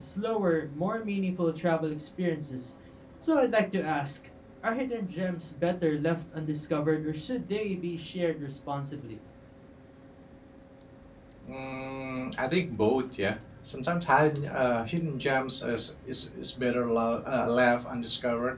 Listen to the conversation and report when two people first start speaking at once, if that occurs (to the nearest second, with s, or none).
none